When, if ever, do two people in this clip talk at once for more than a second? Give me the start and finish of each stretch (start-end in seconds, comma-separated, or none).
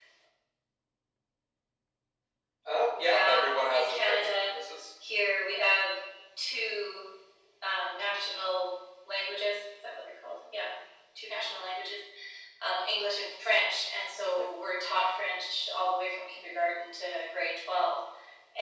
3.0-4.5